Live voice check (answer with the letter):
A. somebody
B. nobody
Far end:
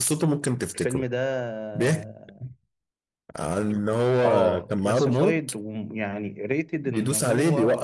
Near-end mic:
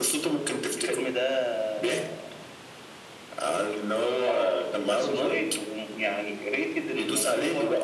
B